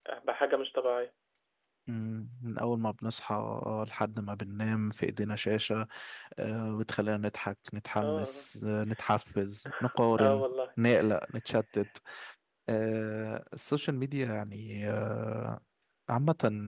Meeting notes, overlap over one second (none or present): none